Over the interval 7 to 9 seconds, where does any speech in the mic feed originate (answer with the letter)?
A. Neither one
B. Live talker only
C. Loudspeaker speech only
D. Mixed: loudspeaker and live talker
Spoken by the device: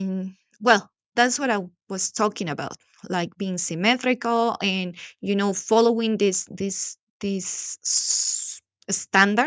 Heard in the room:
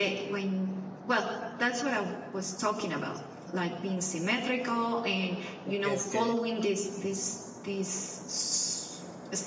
C